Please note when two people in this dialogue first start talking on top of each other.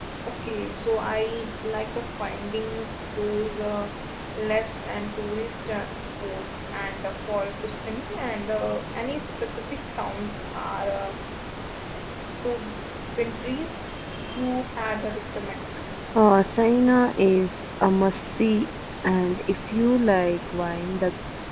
none

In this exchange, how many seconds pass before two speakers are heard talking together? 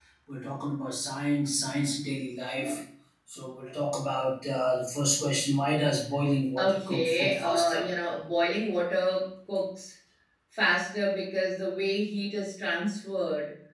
6.6 s

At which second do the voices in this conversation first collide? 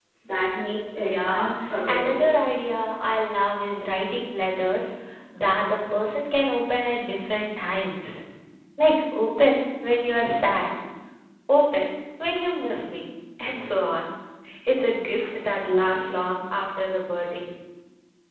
1.0 s

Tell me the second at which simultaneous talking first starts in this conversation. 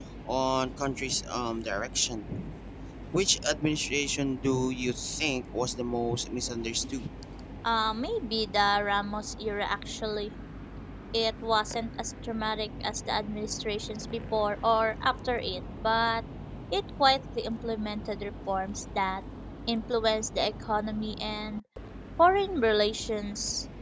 none

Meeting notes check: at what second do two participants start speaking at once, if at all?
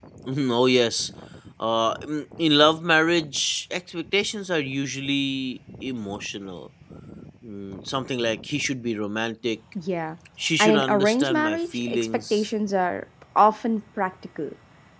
10.6 s

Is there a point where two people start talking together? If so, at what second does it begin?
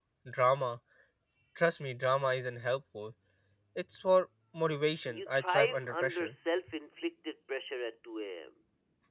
5.1 s

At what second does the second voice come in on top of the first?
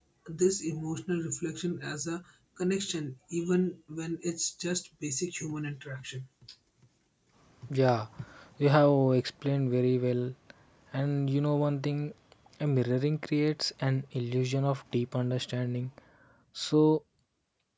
none

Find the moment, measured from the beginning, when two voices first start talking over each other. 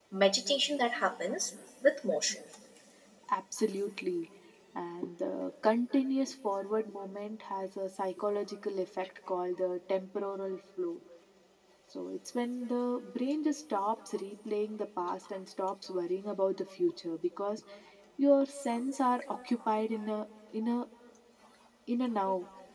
none

